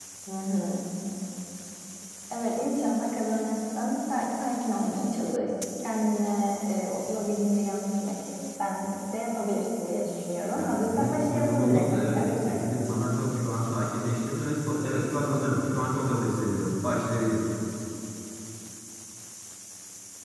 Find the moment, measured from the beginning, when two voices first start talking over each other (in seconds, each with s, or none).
10.6 s